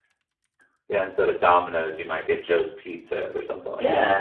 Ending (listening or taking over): taking over